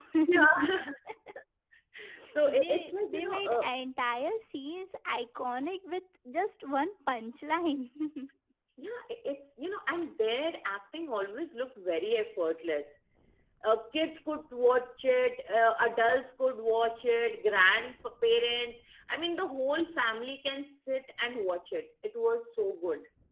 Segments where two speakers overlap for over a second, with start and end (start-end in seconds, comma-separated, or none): 2.5-3.7